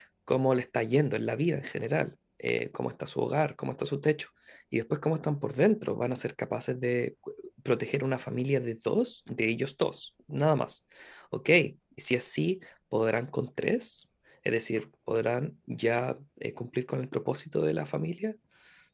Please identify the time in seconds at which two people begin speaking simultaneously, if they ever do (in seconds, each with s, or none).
none